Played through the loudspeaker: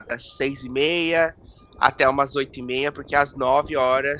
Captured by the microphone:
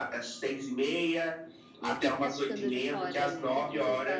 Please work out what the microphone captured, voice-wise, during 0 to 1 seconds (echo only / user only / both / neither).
echo only